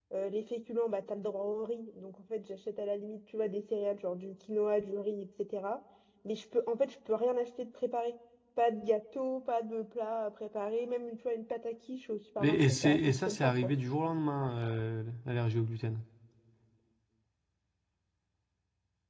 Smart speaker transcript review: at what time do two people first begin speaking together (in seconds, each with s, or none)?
12.4 s